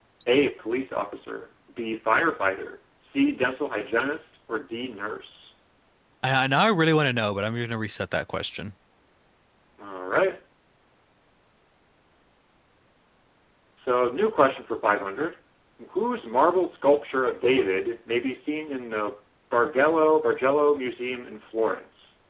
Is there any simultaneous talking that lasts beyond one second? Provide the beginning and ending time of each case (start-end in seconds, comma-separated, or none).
none